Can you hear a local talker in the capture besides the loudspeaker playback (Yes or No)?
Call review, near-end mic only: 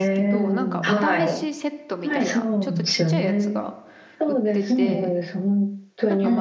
Yes